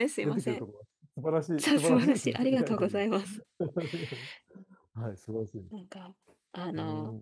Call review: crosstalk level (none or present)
present